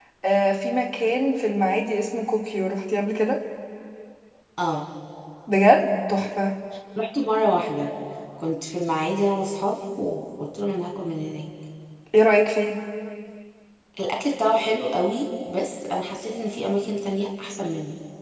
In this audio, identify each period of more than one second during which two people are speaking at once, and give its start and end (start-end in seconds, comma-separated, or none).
none